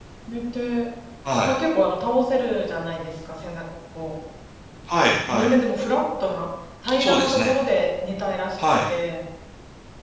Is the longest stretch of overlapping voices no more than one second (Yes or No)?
Yes